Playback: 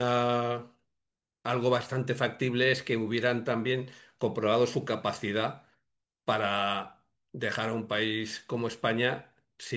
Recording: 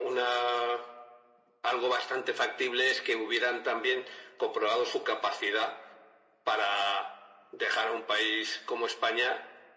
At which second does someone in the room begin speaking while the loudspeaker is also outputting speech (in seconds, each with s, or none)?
none